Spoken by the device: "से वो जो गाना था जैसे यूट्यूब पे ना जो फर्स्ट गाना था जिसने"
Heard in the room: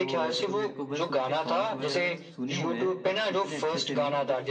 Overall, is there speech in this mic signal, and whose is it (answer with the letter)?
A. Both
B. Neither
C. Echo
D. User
A